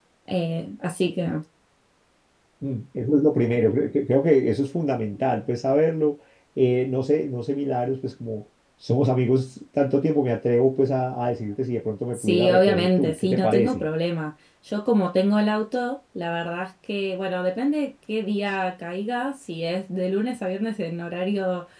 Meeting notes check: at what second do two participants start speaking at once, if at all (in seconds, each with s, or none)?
12.1 s